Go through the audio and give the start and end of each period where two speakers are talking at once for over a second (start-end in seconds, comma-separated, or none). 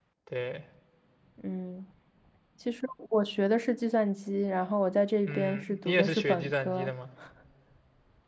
5.2-6.9